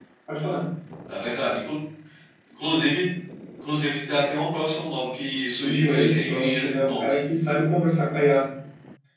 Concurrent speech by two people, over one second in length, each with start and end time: 5.6-7.2

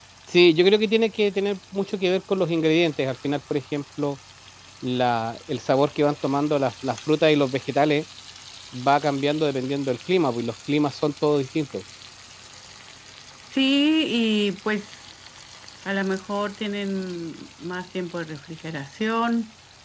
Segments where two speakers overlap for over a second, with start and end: none

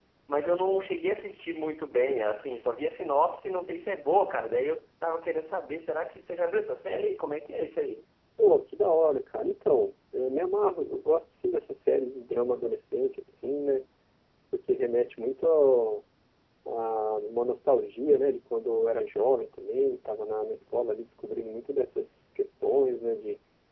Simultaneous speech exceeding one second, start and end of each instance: none

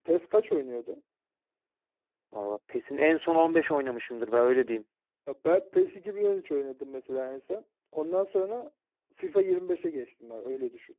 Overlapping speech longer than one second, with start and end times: none

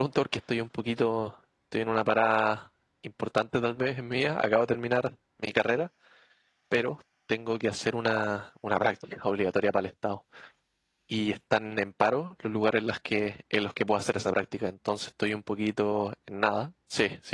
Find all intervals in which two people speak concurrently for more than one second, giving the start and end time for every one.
none

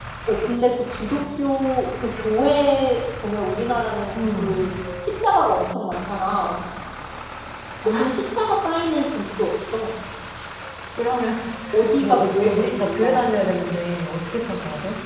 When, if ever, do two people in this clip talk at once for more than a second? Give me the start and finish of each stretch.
12.0-13.2

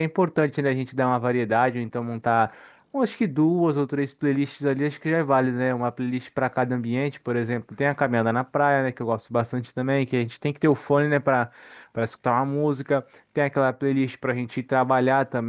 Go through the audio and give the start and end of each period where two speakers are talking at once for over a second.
none

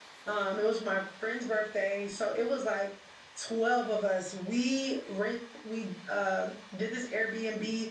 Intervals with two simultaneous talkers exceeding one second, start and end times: none

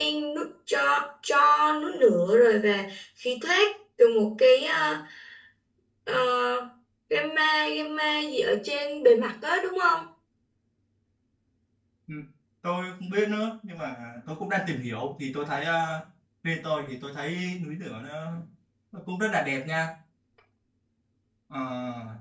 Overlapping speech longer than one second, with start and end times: none

